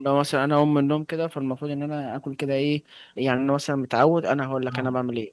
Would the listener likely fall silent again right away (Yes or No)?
Yes